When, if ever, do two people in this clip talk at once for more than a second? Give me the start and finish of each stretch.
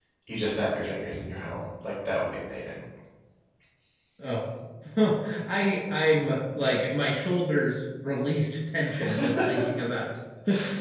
none

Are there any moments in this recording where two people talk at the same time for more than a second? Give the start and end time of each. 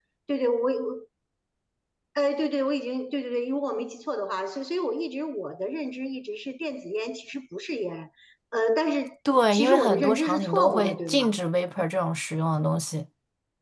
9.5-11.3

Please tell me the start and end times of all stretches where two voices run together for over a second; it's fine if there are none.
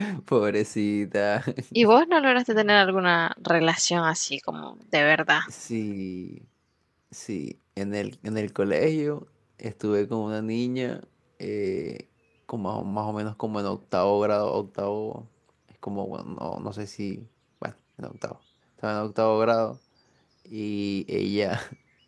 none

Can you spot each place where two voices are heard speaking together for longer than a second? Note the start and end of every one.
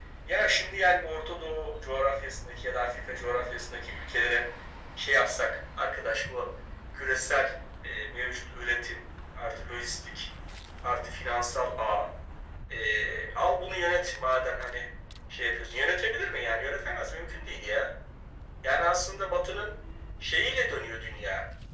none

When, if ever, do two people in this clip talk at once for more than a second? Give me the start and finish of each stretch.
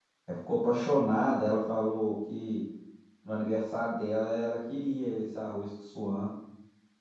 none

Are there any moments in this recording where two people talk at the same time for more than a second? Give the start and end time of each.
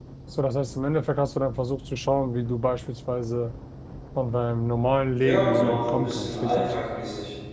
5.2-6.7

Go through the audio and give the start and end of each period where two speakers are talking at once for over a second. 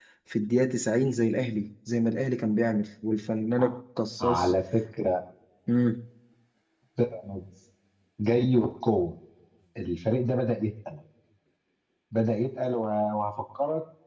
none

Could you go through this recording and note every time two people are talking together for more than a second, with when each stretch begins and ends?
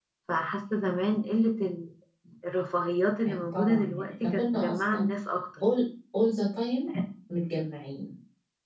3.3-5.1

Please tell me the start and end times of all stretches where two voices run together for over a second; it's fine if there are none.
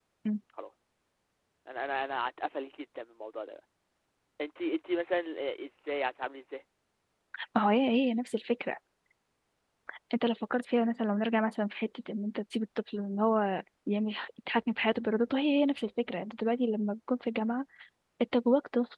none

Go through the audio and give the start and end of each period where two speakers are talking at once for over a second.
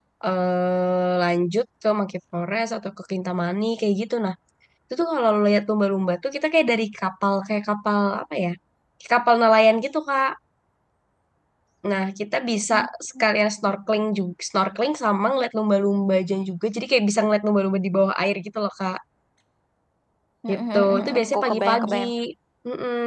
20.5-22.0

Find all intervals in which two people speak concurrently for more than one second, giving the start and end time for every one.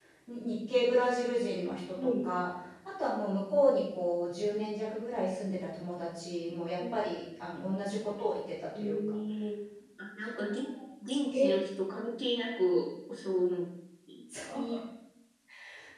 none

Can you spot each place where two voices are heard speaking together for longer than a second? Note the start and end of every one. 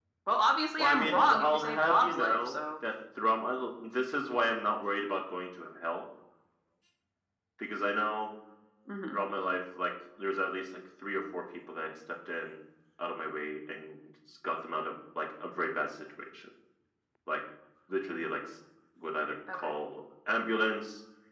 0.8-2.6

